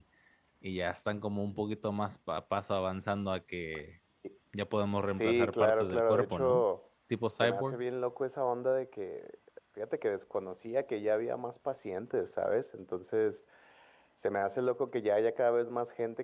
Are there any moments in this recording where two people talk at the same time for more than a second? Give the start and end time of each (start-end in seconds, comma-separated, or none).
5.2-6.6